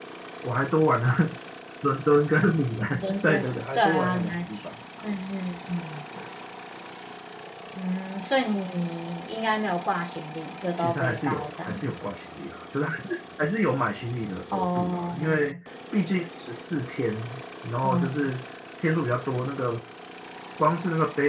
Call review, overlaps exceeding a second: present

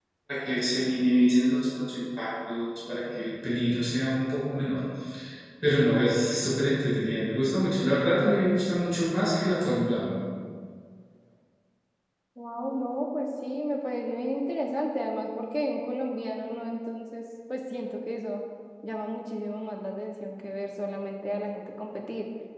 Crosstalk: none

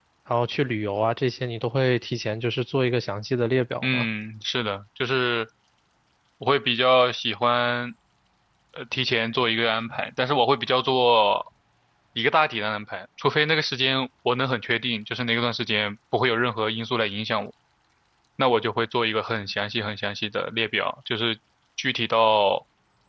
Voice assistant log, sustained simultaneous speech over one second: none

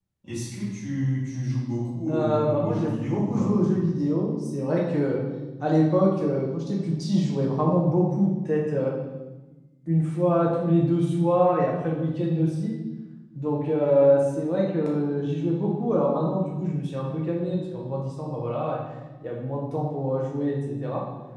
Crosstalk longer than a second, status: present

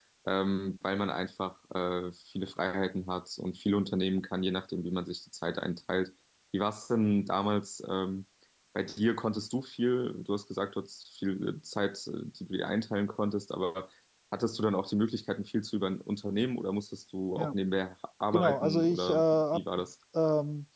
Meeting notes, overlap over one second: present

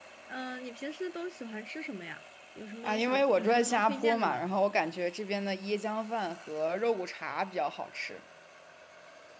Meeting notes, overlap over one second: present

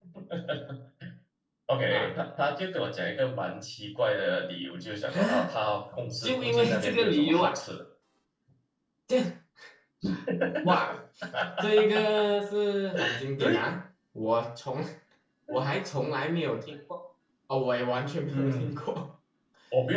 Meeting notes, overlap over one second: present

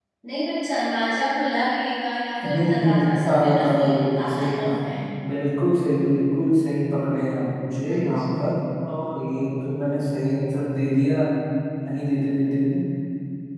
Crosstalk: present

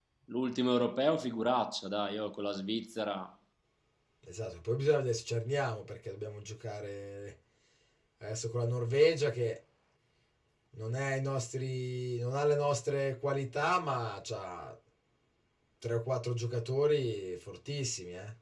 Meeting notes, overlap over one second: none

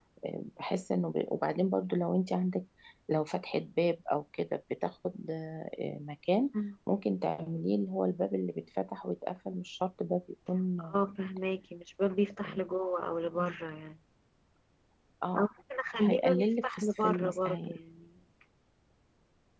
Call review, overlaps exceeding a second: present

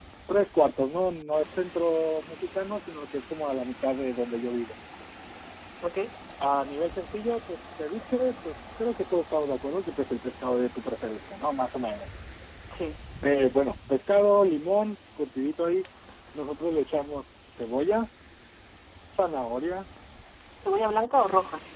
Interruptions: none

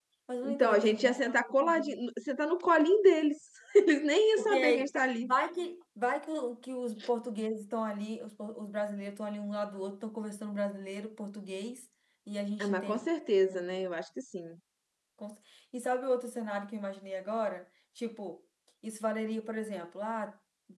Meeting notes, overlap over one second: present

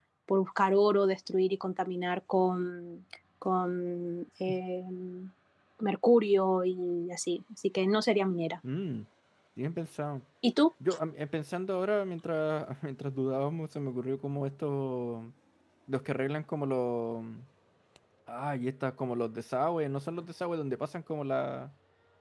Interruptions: none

